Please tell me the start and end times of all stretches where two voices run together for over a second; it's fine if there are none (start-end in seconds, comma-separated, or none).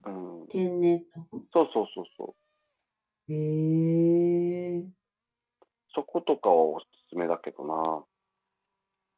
none